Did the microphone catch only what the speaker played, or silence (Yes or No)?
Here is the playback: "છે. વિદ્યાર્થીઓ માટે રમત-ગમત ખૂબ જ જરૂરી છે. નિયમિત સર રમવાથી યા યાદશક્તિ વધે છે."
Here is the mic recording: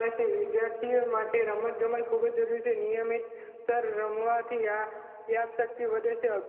Yes